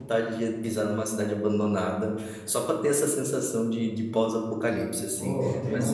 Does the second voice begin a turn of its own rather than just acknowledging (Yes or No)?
Yes